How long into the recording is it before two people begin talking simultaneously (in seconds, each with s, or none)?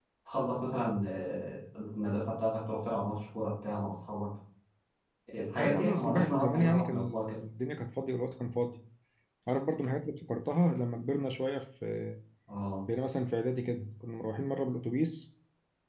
5.6 s